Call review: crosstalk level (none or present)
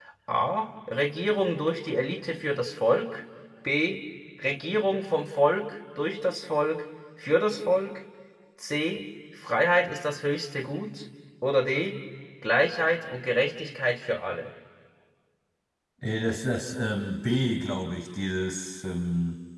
none